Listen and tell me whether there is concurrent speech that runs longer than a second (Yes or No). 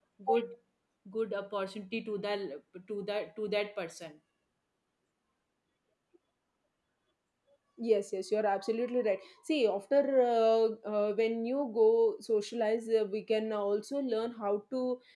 No